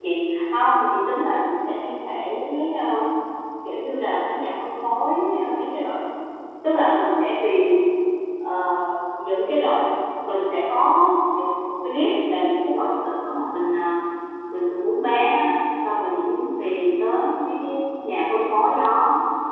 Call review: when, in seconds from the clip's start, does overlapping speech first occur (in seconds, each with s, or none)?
none